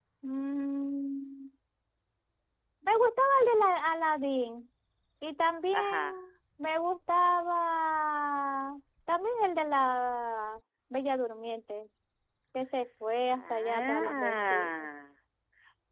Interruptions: present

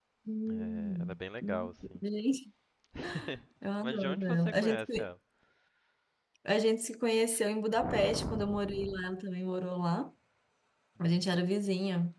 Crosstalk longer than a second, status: present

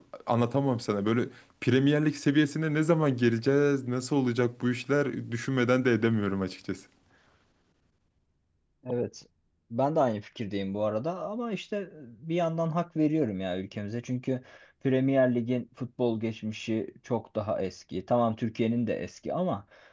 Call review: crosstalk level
none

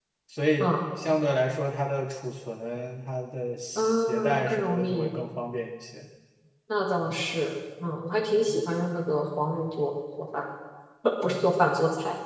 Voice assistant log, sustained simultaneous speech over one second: present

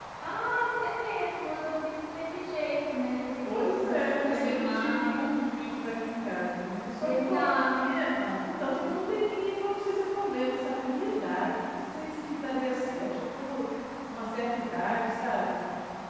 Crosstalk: present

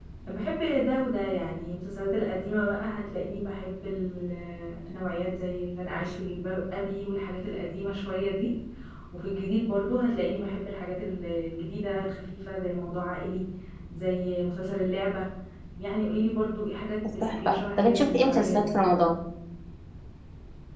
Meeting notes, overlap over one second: present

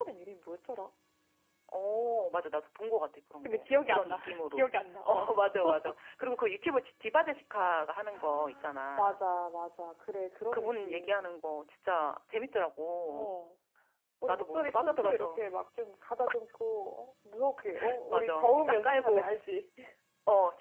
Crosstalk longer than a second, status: present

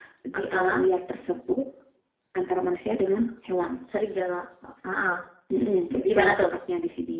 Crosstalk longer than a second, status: none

